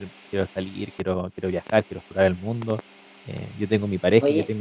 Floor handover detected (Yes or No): No